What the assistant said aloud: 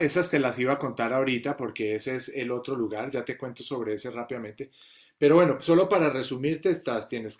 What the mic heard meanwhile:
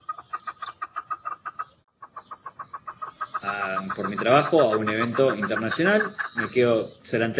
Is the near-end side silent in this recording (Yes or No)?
No